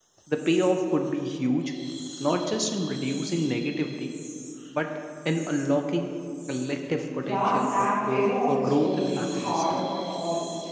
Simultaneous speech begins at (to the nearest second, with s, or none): 7 s